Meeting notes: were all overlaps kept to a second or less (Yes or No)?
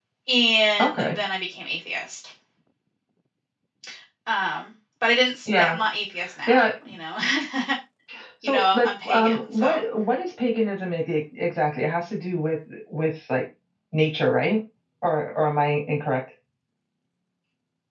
No